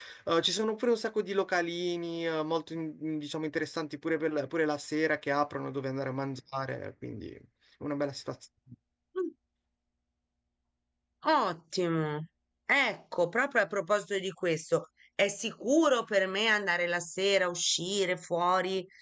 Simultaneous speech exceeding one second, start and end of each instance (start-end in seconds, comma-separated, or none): none